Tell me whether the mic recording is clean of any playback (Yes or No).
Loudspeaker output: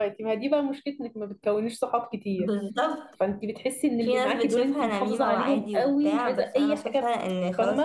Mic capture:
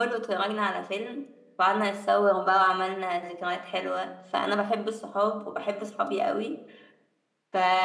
Yes